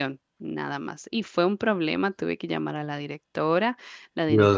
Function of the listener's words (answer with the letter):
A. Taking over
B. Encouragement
B